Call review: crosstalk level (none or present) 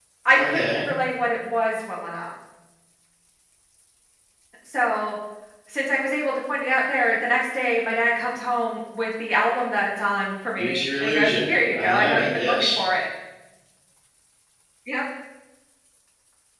present